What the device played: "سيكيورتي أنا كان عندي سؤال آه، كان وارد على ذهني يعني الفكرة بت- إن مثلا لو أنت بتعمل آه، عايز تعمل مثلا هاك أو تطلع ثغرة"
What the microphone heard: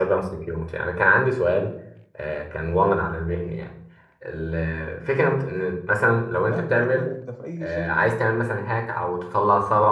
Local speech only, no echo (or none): مهما يكن انت في اي شركه